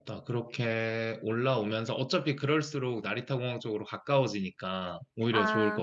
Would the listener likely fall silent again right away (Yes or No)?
No